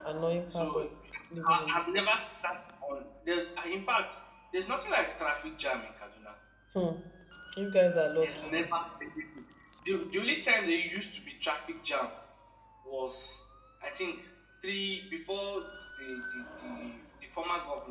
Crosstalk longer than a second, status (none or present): none